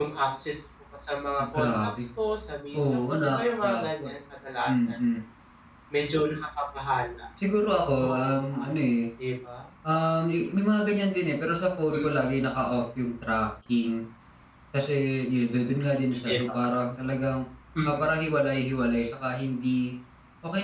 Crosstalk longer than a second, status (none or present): present